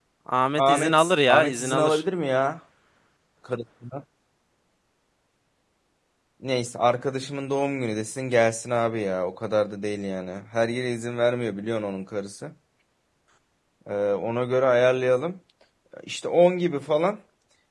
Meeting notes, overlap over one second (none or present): present